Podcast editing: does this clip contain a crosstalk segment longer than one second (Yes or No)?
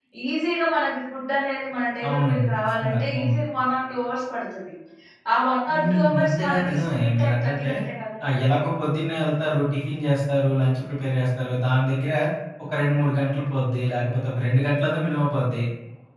Yes